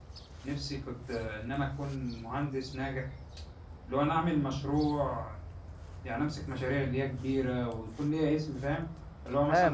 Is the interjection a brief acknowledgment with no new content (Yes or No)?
No